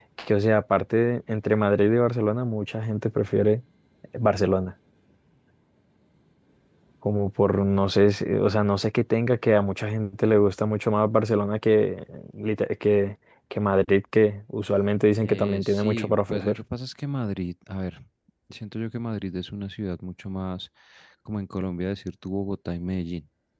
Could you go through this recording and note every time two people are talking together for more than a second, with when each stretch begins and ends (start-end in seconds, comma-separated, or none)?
15.2-16.6